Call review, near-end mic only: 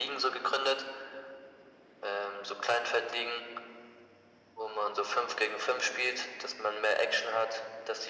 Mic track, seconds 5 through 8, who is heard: echo only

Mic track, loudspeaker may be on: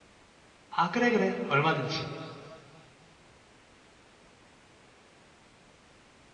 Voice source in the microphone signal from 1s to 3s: user only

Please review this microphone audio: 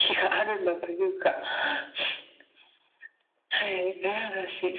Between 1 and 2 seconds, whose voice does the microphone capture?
echo only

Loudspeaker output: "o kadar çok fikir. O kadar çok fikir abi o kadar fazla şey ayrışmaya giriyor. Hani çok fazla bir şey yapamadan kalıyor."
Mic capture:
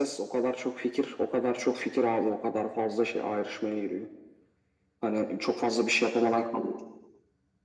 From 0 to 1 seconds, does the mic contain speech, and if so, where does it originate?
echo only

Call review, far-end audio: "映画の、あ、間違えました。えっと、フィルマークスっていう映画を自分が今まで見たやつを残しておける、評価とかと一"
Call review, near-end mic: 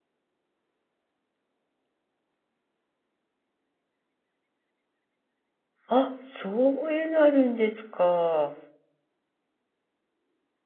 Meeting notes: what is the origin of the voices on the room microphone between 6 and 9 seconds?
user only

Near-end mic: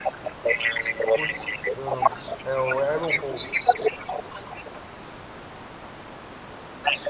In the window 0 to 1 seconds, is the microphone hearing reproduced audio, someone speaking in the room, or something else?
echo only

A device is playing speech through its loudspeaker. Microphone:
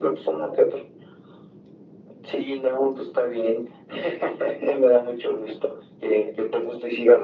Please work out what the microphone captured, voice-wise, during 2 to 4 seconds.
echo only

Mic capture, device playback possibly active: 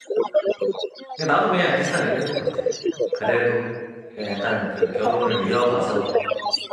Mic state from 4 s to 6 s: both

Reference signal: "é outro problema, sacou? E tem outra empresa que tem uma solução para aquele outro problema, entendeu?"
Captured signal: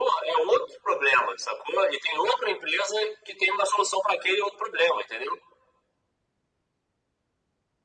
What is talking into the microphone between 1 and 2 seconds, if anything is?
echo only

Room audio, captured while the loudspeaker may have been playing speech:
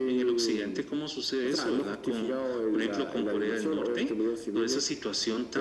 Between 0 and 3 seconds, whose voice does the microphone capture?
echo only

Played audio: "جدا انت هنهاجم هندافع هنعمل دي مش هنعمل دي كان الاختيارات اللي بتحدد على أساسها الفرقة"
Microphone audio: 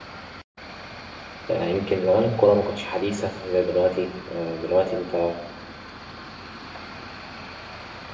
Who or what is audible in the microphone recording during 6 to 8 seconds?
neither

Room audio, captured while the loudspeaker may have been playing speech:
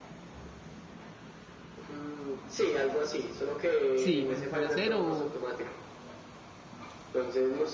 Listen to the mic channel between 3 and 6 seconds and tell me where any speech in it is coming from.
both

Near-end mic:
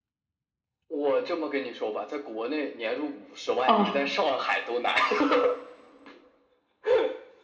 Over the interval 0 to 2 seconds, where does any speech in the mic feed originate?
echo only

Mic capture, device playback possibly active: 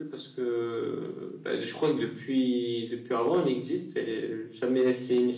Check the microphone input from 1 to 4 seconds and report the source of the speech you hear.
user only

